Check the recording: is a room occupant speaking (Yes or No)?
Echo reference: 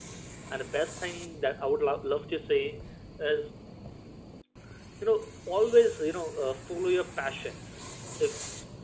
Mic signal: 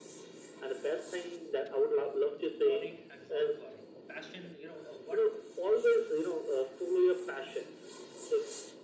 Yes